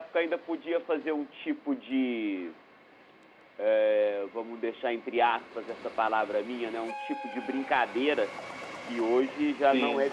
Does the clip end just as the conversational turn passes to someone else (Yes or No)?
No